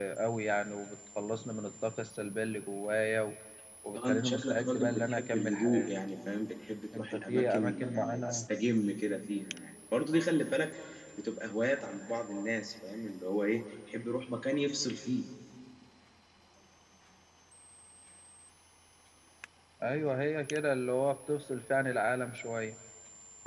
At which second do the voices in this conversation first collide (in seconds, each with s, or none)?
4.0 s